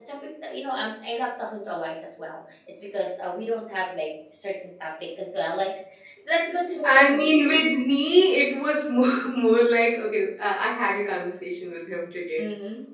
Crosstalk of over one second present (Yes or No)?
No